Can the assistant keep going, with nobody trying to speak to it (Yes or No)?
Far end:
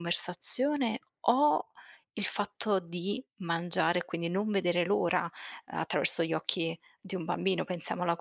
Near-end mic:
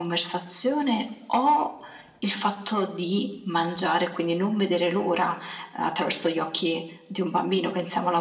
Yes